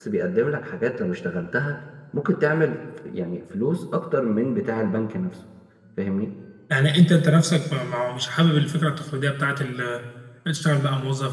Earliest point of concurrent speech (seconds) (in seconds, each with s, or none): none